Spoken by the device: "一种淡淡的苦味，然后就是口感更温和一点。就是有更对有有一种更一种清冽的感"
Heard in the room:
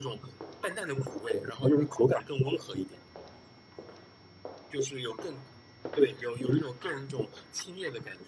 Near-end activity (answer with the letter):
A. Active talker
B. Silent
B